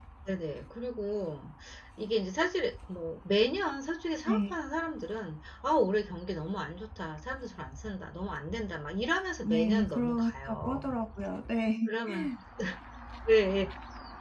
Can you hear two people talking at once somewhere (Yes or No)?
Yes